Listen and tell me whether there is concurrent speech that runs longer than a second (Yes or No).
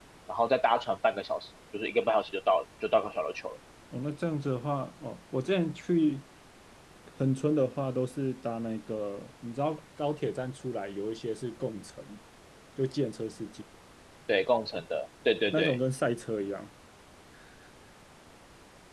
No